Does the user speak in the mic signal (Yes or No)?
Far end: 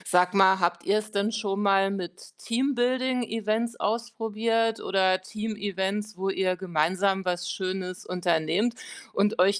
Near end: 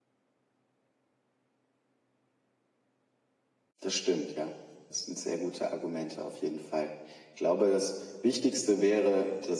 Yes